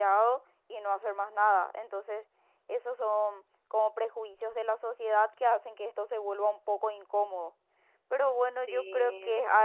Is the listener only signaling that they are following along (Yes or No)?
Yes